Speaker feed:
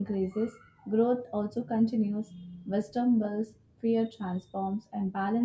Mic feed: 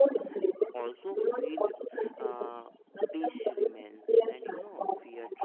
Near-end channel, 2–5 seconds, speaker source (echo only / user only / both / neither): both